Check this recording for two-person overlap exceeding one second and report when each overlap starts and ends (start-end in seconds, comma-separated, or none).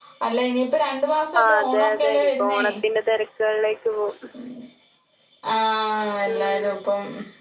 1.4-2.6